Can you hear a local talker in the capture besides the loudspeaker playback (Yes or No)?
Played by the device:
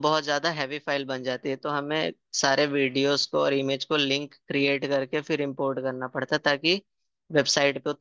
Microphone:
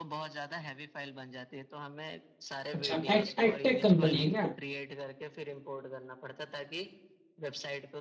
Yes